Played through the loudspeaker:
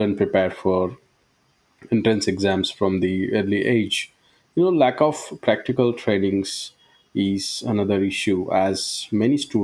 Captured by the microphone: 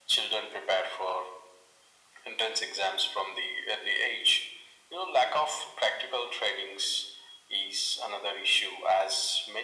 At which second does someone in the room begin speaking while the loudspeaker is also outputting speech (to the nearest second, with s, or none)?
none